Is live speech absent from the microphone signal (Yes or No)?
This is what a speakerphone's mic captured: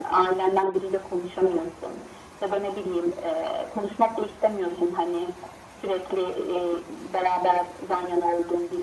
Yes